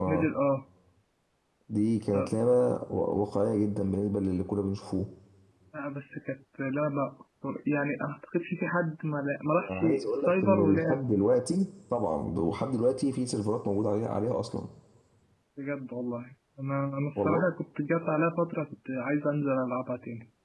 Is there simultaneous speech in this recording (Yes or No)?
Yes